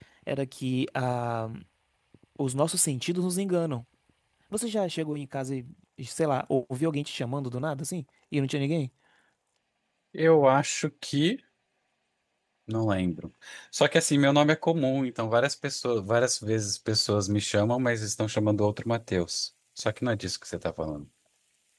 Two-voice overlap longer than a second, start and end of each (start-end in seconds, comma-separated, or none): none